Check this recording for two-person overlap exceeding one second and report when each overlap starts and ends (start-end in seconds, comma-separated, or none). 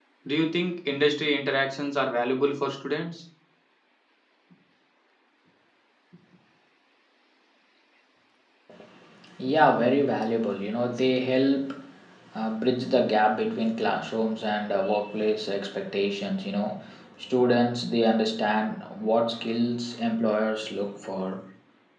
none